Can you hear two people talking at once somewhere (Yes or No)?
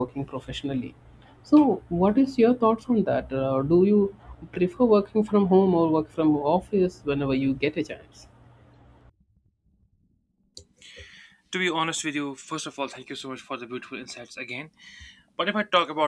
No